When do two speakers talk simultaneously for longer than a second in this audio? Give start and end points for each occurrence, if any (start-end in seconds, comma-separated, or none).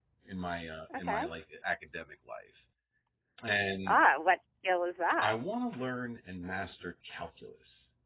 none